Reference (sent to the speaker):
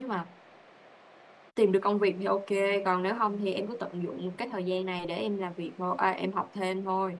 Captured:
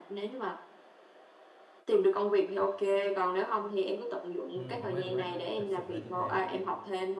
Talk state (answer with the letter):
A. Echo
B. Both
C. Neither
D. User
B